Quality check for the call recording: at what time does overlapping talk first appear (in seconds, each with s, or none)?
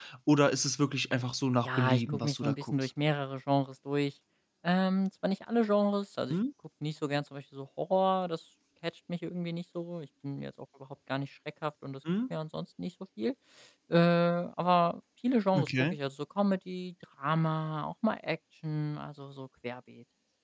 1.6 s